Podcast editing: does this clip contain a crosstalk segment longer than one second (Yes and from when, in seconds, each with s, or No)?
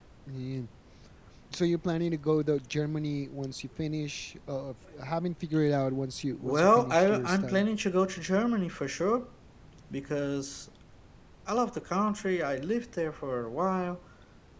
Yes, from 6.4 s